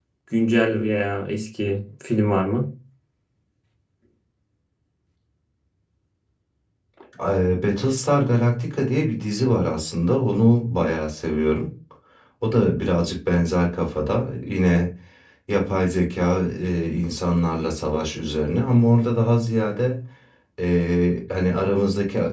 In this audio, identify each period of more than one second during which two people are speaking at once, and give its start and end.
none

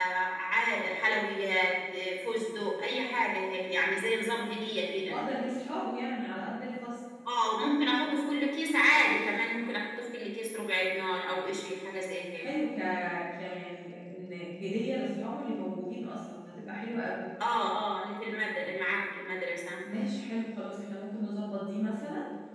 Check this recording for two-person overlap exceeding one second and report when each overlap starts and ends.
none

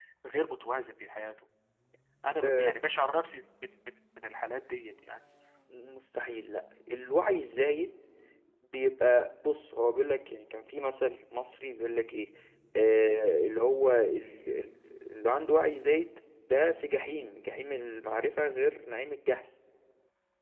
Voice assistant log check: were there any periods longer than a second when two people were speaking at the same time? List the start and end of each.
none

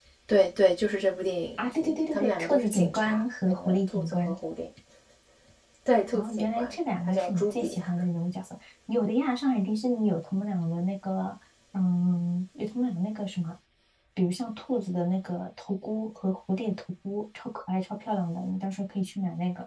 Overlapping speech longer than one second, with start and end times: 1.6-4.4, 6.1-7.8

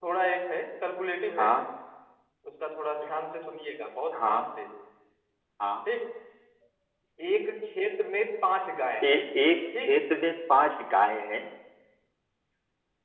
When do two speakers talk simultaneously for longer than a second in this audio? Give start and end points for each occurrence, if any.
none

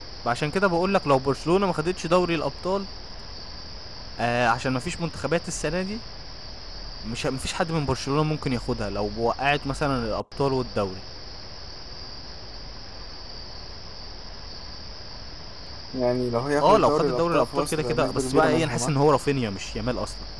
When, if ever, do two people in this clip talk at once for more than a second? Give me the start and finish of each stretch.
16.6-18.9

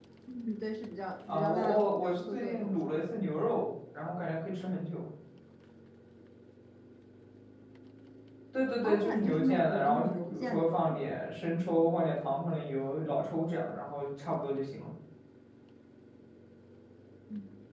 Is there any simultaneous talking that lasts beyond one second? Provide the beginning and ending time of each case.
1.3-2.9, 8.8-11.1

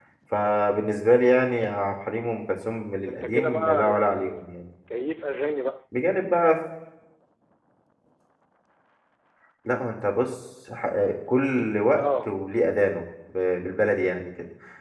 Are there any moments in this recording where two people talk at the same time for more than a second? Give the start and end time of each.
3.0-4.5

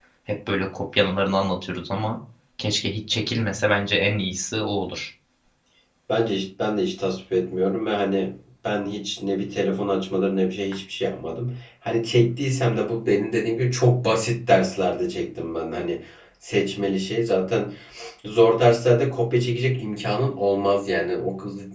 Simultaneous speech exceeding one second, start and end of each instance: none

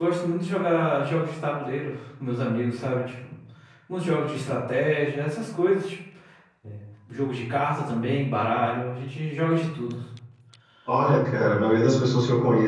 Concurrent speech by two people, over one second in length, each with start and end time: none

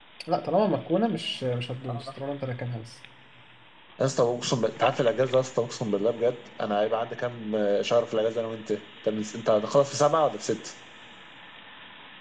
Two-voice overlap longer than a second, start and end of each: none

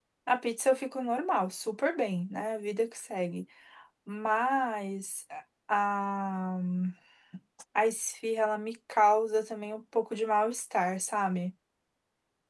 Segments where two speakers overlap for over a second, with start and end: none

